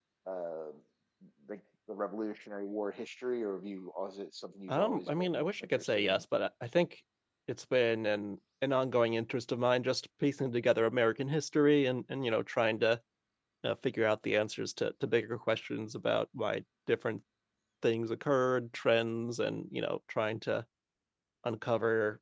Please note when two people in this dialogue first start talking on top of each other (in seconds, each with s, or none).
4.7 s